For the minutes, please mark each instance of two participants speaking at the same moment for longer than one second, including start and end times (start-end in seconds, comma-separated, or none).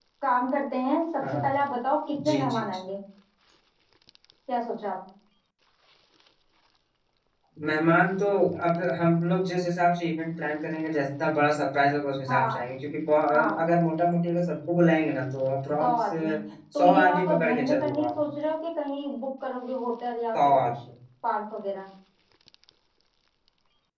16.8-18.3